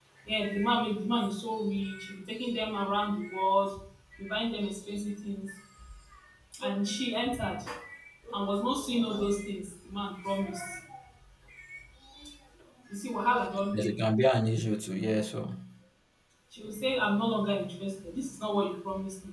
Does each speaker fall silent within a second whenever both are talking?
Yes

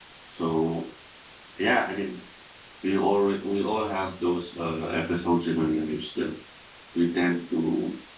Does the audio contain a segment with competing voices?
No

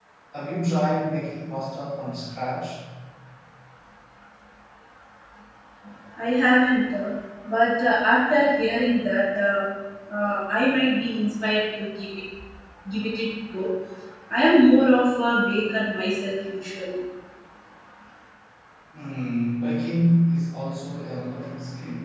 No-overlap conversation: Yes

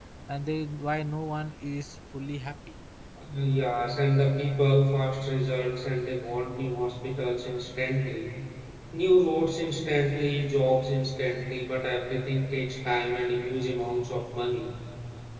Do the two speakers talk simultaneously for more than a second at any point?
No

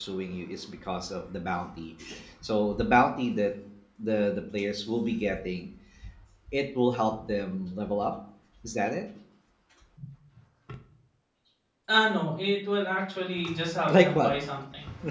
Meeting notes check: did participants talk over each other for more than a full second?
No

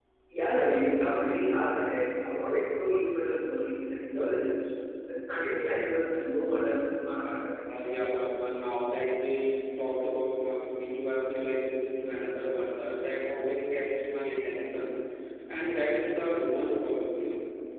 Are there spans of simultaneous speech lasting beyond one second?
No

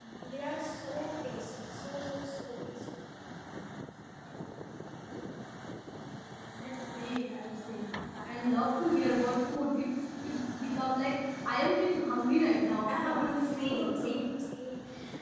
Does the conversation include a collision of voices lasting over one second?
Yes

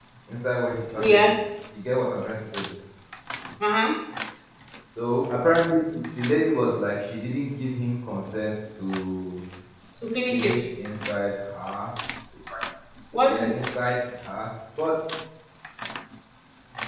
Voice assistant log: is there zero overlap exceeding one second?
Yes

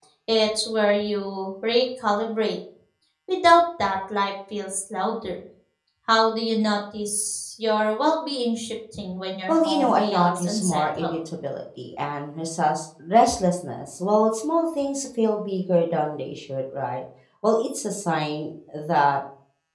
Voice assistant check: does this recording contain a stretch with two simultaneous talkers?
Yes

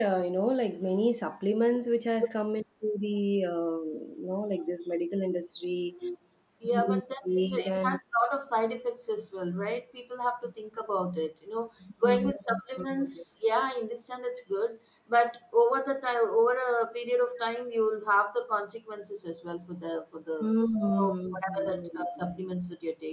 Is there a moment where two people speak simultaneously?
Yes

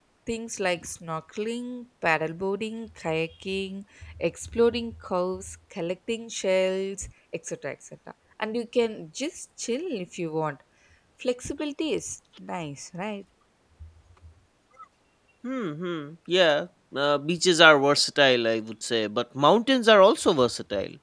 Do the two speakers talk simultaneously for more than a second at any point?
No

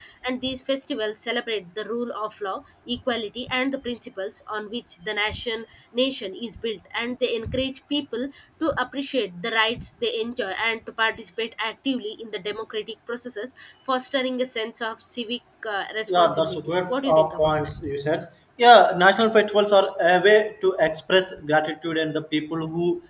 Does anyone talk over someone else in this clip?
Yes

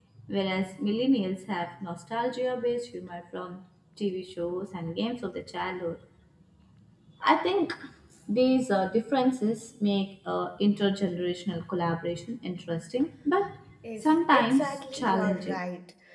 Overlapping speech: Yes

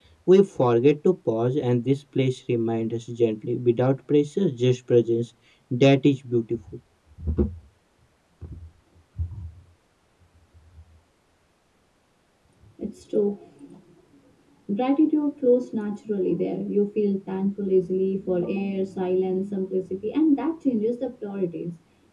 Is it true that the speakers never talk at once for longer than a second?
Yes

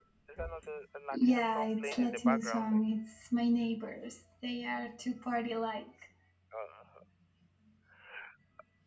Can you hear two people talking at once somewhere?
Yes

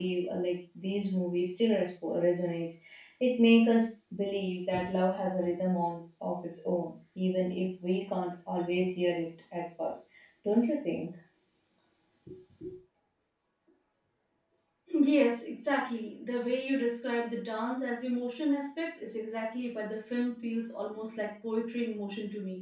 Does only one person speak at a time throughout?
Yes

